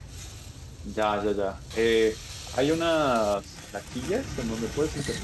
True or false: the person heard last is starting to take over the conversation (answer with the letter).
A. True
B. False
B